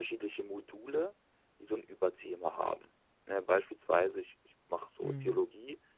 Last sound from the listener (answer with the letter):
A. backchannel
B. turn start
A